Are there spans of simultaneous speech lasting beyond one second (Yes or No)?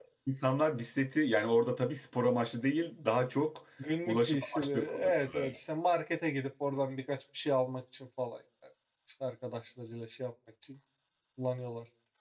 Yes